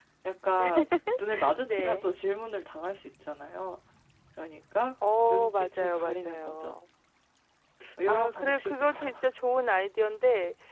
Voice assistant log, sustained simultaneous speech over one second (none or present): present